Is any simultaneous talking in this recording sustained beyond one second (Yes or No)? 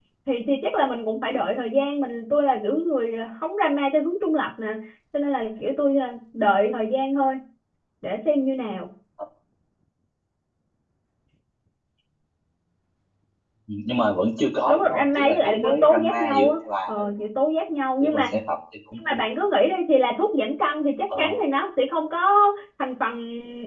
Yes